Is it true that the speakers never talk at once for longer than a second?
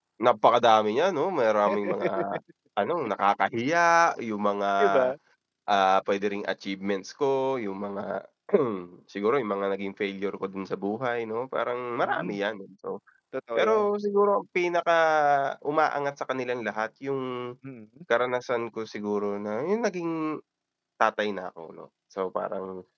Yes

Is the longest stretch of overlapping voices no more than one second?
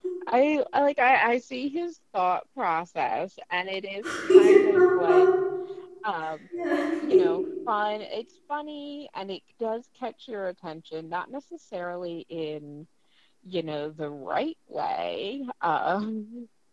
No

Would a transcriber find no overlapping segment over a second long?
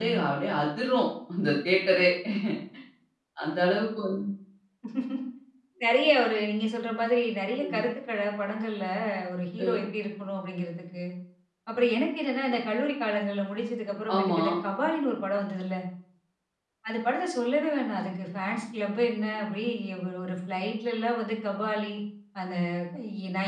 Yes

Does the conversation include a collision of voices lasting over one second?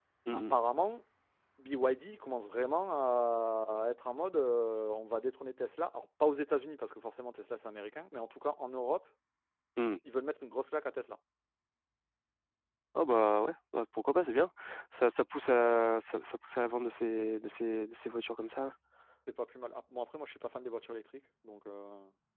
No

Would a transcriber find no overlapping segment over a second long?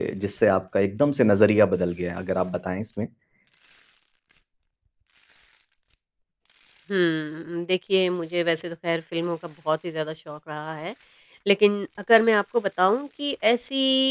Yes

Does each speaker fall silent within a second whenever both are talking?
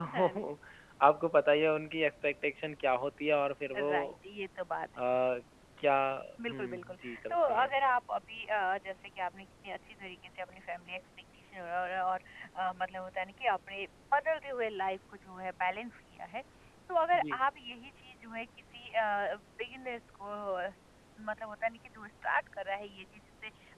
No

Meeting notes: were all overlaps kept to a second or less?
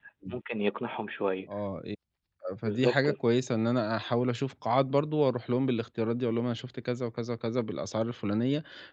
Yes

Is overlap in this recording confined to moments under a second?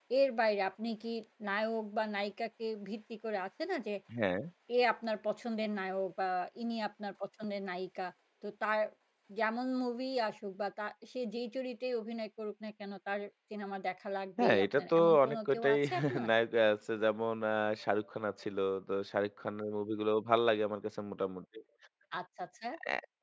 No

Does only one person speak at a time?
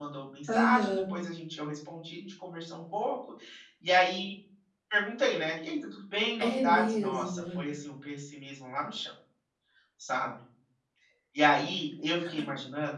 No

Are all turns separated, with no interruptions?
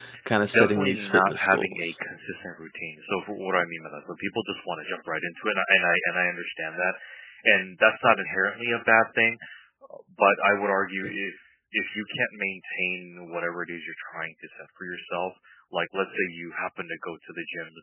No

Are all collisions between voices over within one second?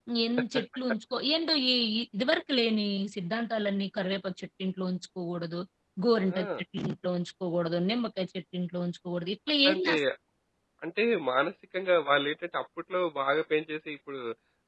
Yes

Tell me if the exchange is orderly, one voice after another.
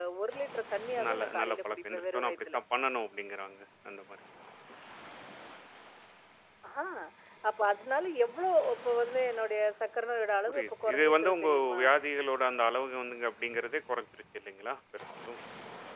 No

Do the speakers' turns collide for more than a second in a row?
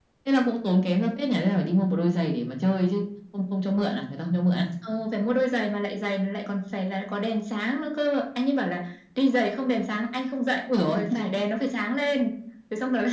No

